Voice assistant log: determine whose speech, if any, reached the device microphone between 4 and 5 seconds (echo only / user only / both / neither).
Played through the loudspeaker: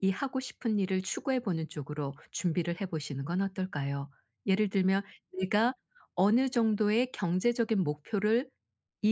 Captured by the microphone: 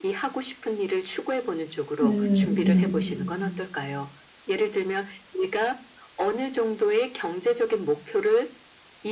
echo only